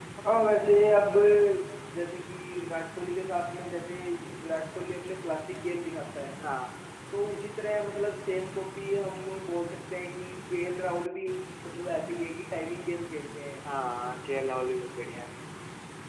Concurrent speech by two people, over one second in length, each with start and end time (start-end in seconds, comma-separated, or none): none